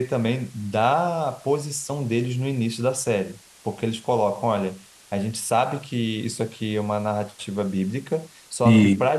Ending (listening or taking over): listening